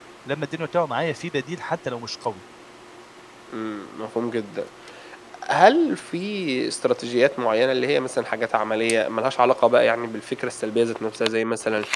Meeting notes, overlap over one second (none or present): none